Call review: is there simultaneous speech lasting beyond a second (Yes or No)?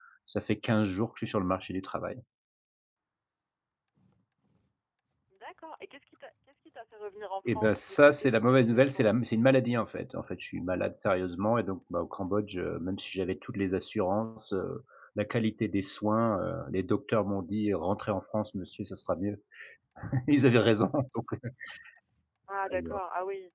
Yes